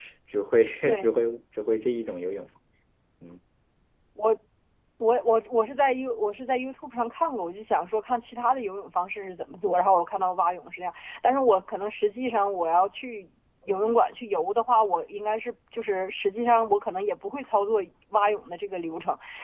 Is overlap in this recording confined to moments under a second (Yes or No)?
Yes